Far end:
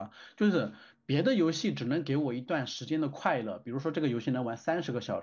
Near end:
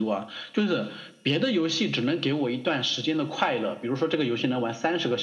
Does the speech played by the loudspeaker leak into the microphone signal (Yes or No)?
Yes